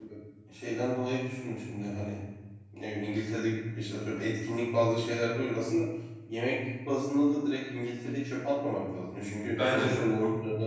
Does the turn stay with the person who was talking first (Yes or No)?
Yes